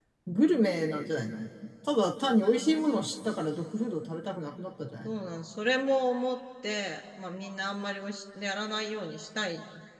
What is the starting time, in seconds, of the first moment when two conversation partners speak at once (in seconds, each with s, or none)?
none